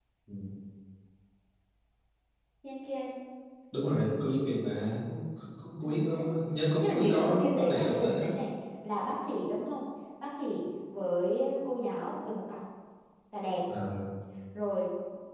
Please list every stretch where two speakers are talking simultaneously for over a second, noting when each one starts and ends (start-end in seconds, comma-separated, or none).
6.7-8.3